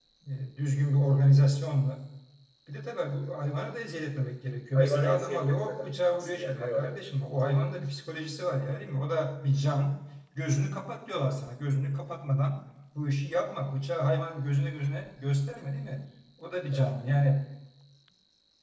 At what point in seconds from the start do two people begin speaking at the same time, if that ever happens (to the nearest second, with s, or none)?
5 s